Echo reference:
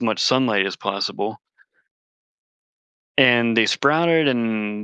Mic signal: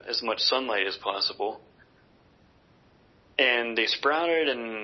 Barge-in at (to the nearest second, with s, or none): none